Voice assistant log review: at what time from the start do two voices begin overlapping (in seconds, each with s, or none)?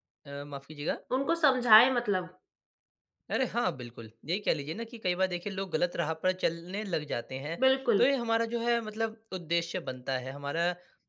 none